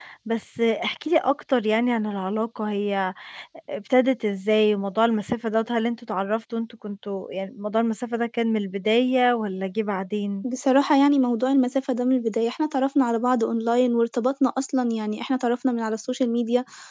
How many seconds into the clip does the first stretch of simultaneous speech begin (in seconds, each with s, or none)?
none